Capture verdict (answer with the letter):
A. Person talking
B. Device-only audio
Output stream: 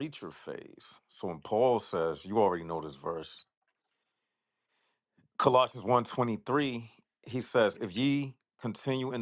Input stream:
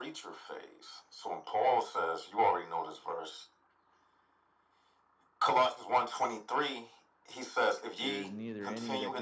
A